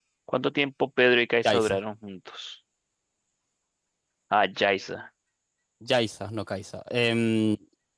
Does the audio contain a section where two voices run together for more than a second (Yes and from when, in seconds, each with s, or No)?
No